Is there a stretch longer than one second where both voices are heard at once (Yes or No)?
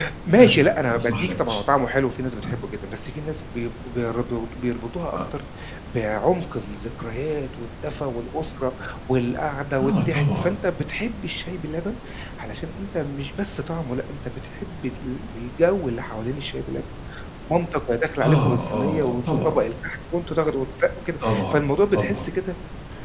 Yes